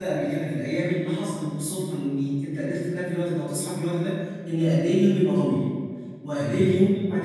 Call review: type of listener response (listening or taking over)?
listening